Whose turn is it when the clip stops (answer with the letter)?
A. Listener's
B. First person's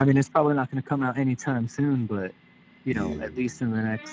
B